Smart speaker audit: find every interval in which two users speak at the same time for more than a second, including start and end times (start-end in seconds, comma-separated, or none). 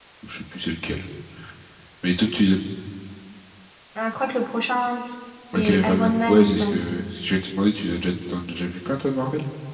5.5-6.8